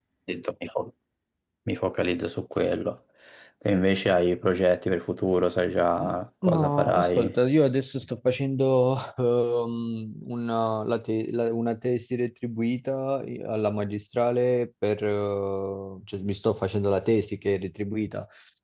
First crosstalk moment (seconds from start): 6 s

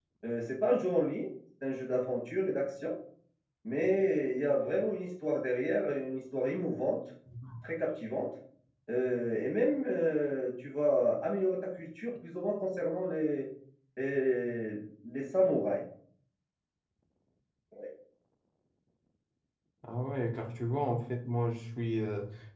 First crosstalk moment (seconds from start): none

